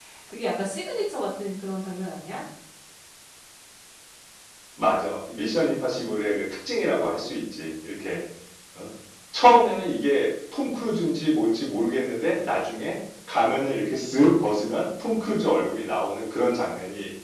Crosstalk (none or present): none